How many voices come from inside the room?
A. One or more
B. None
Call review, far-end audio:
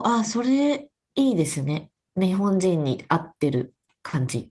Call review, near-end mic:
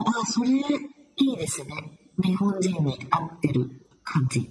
B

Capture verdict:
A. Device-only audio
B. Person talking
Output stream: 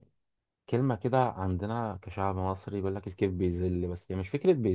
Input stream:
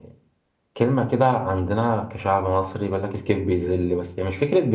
A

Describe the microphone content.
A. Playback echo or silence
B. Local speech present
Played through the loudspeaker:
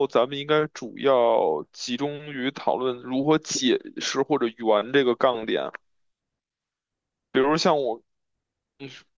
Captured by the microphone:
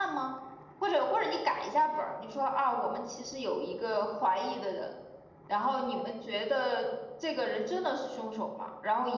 B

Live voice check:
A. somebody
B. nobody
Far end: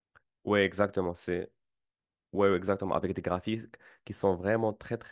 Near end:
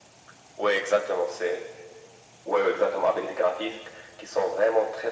B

